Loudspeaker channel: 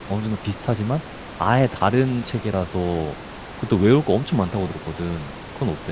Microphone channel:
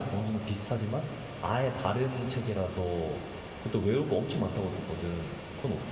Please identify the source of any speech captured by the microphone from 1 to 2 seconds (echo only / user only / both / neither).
echo only